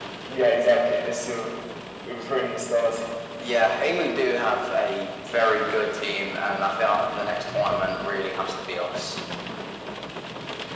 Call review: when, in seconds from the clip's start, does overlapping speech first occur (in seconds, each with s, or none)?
none